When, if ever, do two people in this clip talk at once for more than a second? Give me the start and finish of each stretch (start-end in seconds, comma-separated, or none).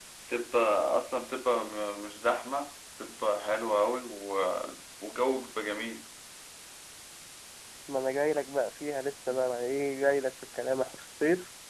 none